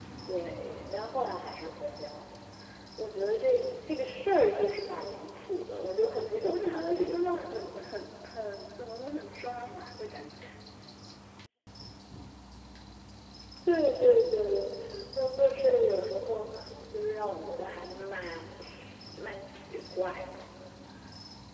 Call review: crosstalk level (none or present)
present